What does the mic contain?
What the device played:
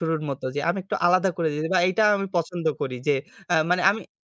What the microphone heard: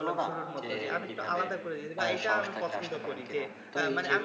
both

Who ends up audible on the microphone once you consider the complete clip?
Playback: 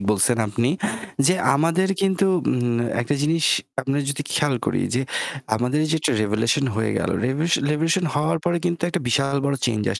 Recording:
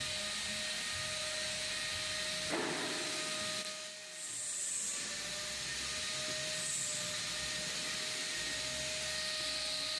neither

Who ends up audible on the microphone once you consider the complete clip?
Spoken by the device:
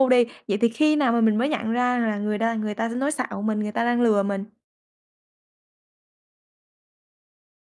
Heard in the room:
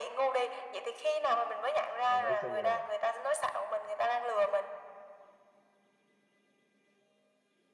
both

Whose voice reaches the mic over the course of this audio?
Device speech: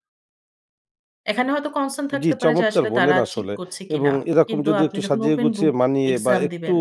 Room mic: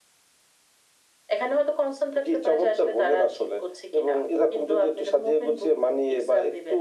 echo only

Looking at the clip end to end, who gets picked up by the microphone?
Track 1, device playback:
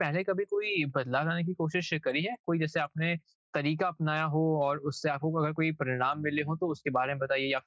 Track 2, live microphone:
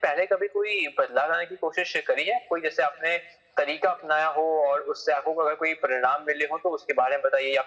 echo only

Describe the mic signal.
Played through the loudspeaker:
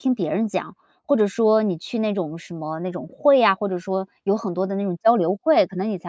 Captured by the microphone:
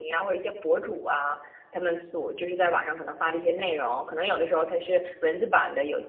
user only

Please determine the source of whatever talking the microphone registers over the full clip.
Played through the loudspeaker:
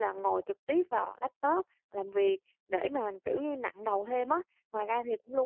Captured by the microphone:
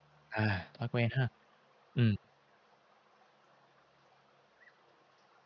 user only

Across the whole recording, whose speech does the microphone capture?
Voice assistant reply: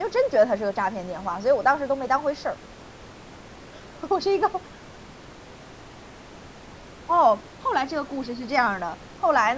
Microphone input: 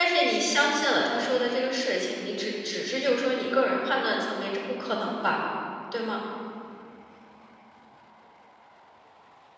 user only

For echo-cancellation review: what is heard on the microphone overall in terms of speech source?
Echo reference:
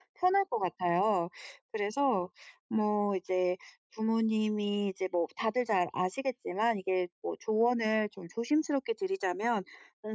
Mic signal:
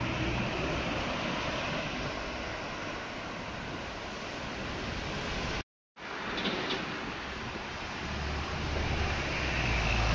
neither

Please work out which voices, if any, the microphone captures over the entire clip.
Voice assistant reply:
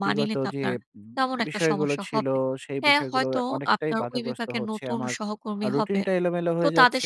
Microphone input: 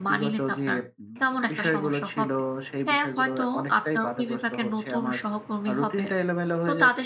both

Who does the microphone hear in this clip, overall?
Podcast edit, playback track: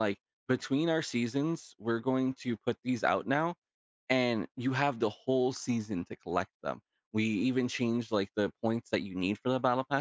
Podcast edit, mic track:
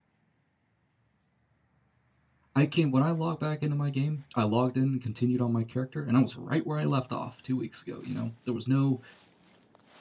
user only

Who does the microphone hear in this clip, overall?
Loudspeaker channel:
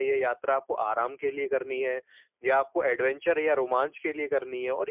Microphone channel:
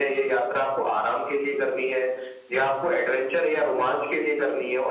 echo only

